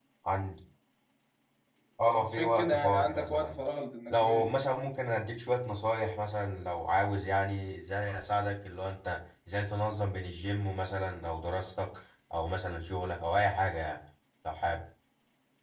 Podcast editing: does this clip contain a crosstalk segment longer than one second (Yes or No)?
Yes